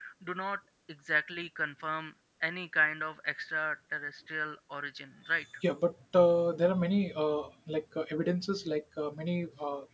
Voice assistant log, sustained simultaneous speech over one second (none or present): none